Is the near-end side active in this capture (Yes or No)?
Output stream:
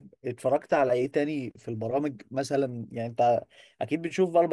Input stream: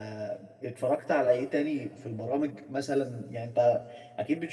No